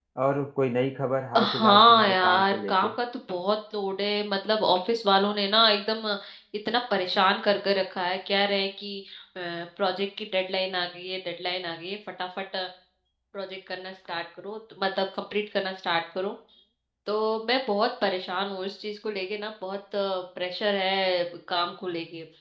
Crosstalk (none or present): present